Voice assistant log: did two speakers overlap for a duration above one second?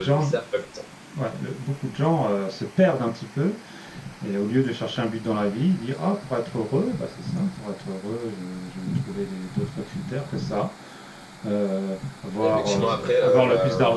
Yes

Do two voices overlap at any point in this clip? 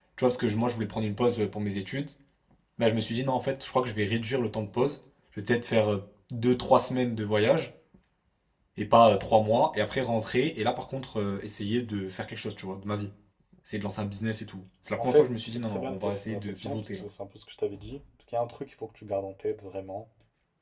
Yes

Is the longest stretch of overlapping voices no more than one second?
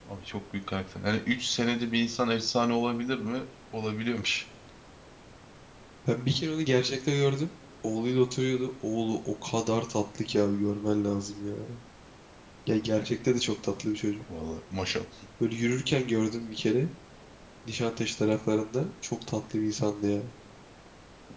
Yes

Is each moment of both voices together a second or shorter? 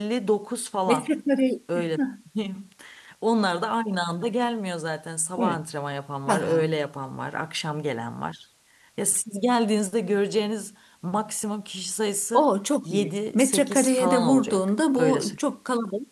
No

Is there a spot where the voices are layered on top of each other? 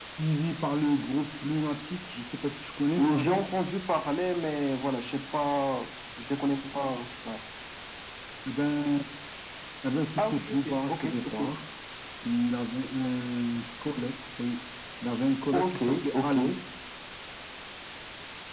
Yes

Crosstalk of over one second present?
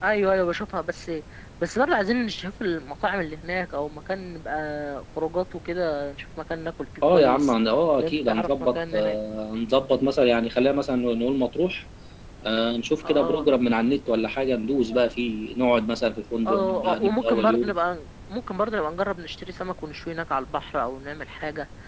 Yes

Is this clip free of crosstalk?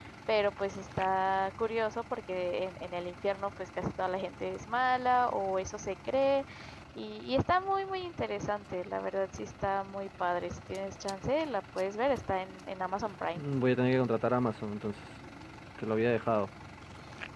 Yes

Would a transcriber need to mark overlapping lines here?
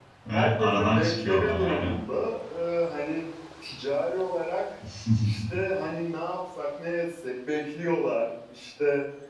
Yes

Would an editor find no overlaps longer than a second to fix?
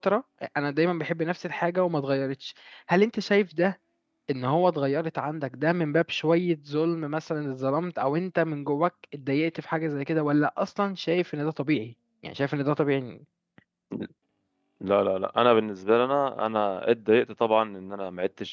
Yes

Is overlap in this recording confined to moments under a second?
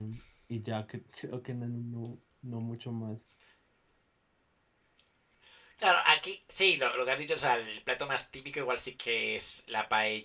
Yes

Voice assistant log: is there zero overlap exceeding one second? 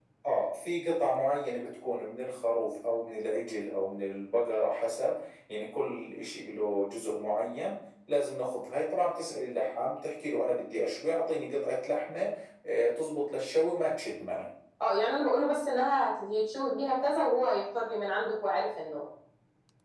Yes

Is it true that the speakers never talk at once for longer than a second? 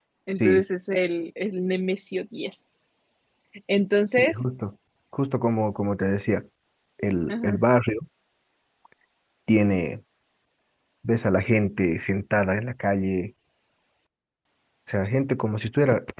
Yes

